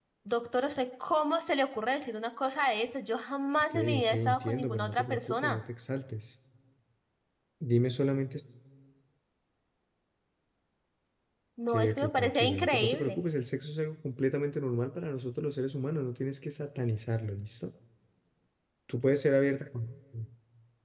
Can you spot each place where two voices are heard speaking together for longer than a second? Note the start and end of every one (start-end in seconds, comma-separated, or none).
3.7-5.6, 11.7-13.2